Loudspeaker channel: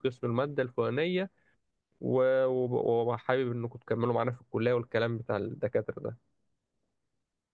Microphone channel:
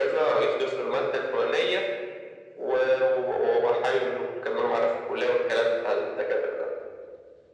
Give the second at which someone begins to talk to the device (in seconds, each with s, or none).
none